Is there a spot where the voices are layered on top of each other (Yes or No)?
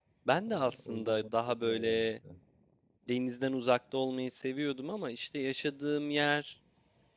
Yes